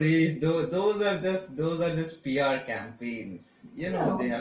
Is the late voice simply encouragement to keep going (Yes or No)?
Yes